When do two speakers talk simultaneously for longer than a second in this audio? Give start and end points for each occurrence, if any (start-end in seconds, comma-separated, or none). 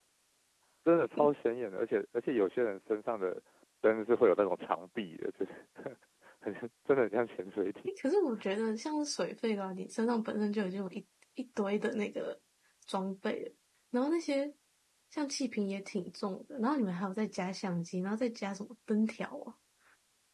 none